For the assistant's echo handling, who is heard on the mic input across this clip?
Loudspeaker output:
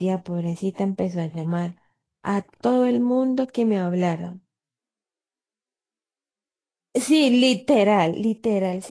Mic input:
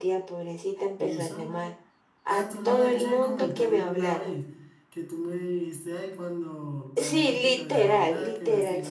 both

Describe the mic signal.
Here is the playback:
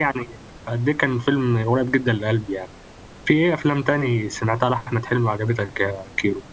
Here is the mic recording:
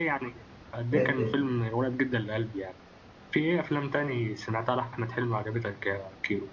both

